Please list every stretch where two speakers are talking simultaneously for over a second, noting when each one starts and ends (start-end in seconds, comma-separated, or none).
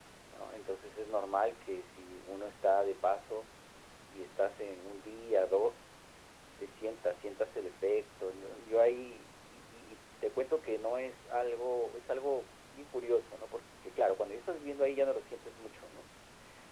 none